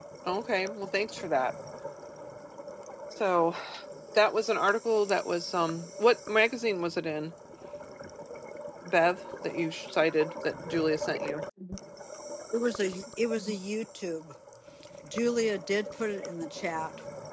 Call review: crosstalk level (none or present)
none